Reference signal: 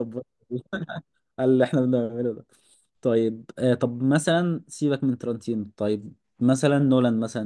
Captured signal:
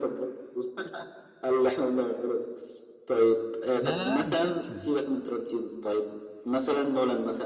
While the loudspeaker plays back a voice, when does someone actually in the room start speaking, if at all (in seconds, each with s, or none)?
3.8 s